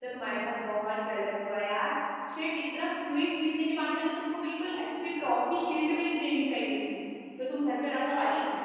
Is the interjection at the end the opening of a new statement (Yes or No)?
Yes